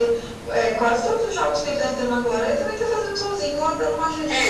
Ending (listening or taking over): taking over